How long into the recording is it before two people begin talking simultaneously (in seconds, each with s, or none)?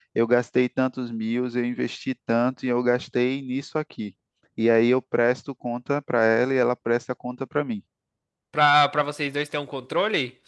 none